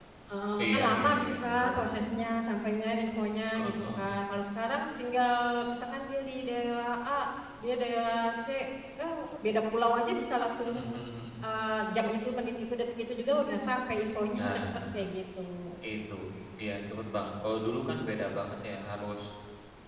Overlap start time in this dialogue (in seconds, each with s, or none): 0.6 s